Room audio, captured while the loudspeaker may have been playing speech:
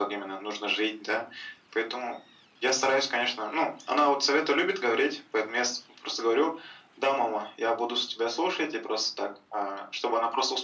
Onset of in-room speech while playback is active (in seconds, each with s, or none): none